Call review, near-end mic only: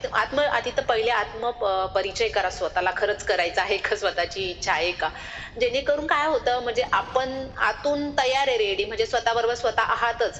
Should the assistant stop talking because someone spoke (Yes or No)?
No